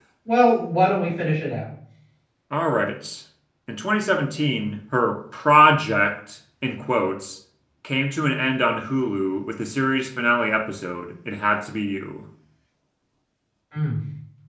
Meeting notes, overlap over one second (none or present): none